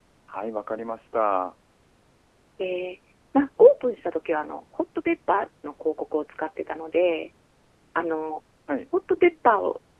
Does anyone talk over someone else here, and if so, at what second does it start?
none

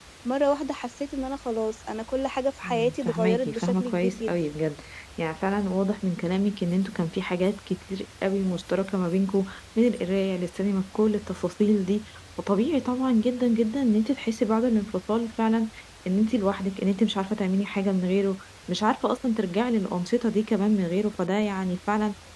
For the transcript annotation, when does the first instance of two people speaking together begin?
3 s

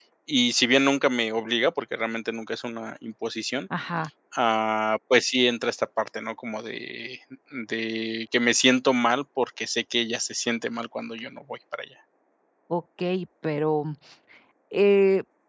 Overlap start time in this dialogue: none

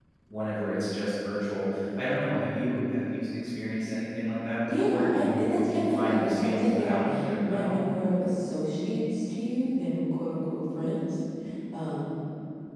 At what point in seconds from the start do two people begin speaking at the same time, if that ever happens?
5 s

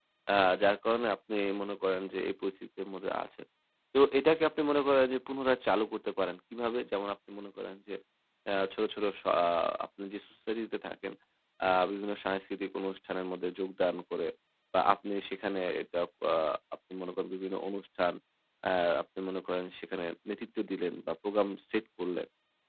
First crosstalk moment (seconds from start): none

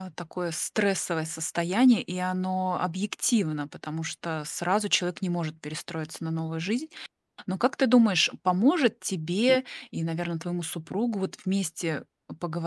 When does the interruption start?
none

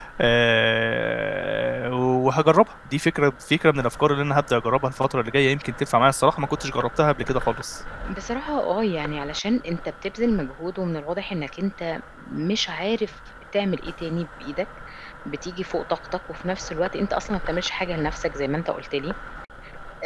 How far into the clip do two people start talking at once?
none

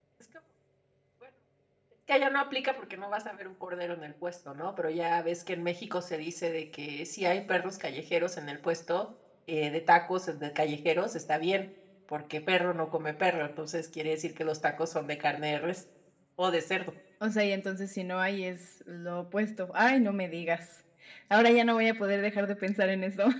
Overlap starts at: none

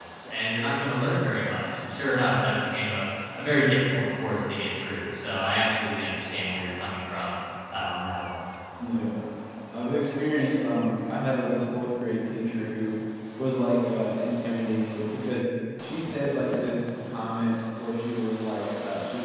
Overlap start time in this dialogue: none

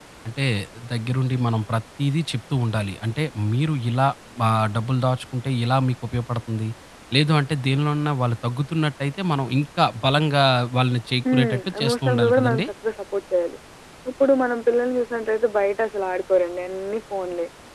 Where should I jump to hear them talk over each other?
11 s

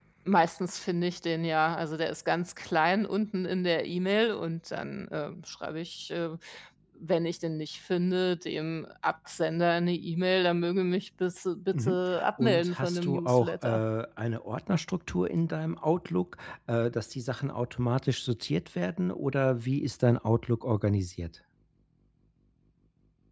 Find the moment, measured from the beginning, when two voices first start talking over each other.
12 s

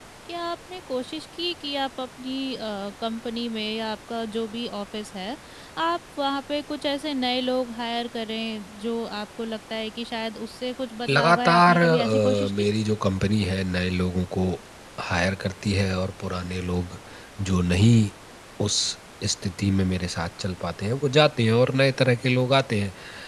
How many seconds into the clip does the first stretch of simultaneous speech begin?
11 s

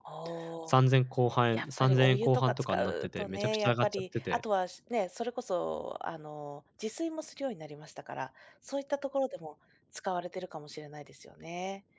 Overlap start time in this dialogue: 2 s

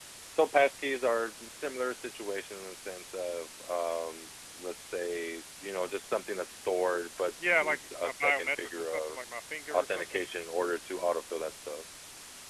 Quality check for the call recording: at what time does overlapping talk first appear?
8 s

